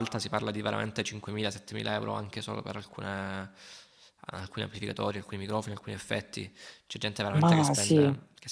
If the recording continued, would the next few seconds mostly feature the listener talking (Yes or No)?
No